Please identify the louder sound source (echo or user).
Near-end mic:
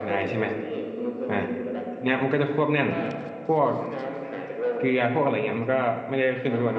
user